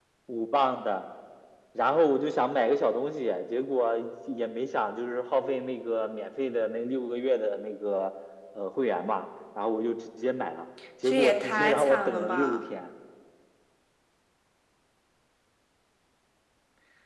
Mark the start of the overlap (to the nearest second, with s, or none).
11 s